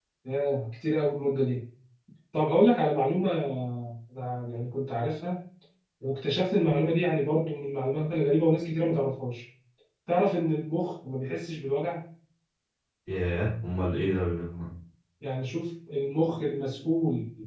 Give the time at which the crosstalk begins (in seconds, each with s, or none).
none